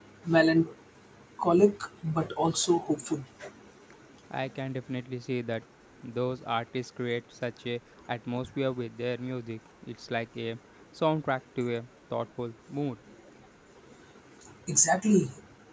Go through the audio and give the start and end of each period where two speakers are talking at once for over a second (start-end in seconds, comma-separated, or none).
none